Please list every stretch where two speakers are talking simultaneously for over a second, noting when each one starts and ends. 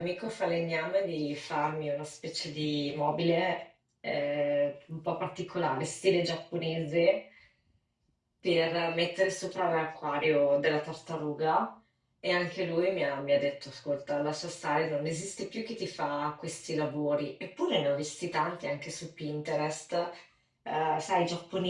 none

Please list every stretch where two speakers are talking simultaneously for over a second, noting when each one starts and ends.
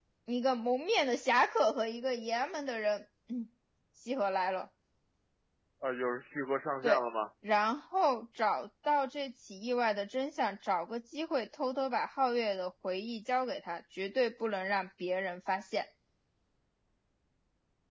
none

